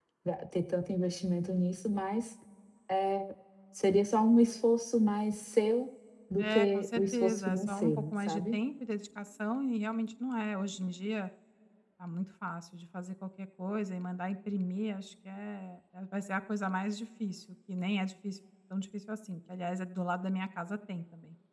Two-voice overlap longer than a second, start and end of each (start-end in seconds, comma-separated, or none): 6.4-8.6